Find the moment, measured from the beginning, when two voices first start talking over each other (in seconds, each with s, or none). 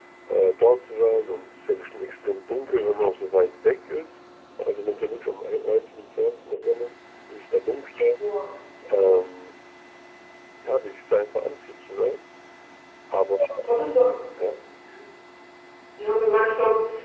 none